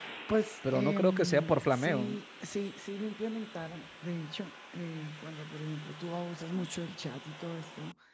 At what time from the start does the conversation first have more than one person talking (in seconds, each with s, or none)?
0.7 s